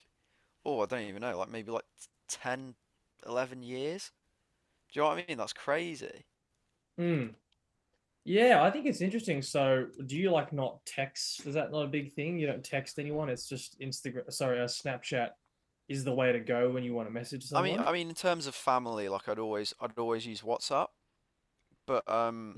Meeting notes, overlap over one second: none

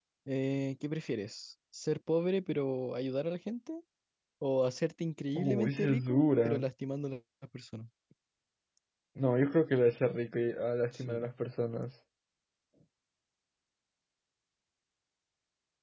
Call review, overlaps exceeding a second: present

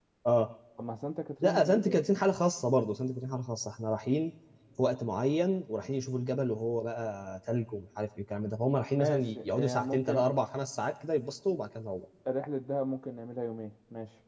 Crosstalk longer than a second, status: present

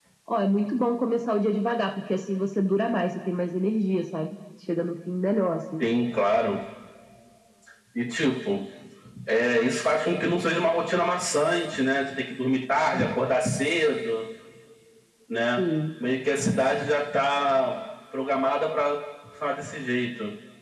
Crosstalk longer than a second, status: none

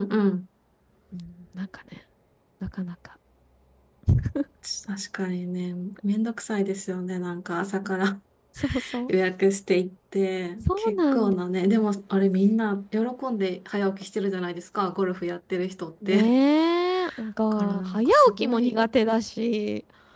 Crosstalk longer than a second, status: present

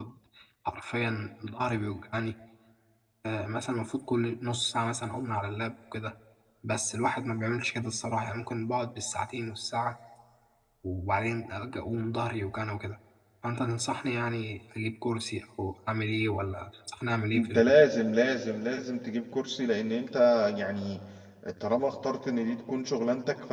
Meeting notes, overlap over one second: none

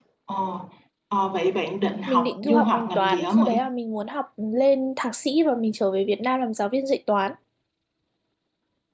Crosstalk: present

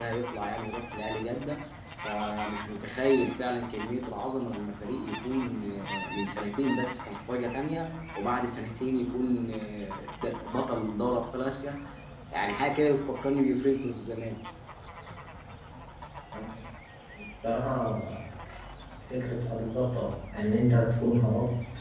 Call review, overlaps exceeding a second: none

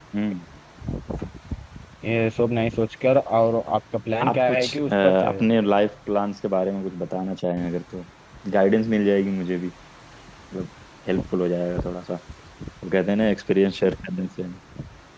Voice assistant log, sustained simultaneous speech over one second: present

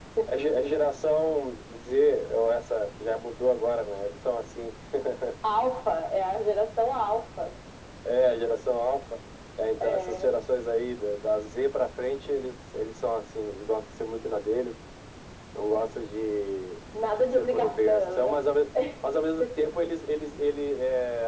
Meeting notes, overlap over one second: present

